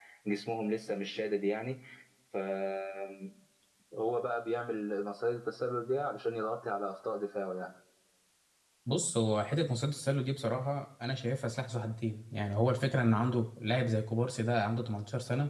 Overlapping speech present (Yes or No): No